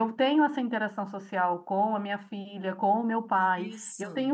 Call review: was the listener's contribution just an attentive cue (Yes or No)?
Yes